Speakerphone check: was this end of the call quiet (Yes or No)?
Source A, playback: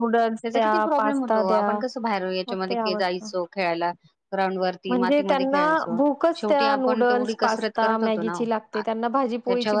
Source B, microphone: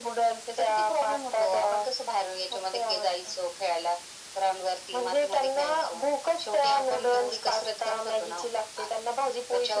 Yes